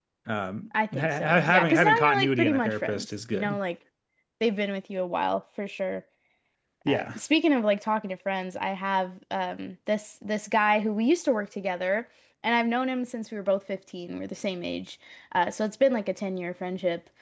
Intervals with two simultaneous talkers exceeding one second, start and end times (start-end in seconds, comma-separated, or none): 0.9-3.6